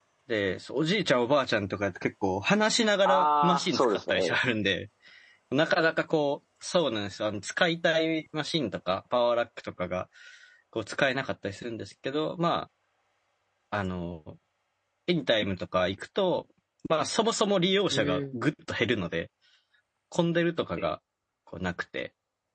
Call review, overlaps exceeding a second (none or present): present